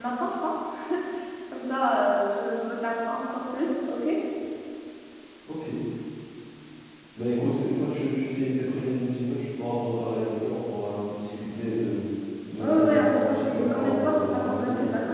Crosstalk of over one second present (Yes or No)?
Yes